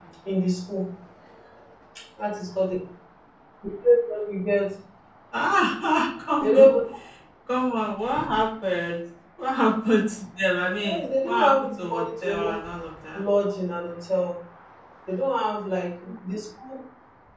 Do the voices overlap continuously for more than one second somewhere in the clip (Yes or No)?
Yes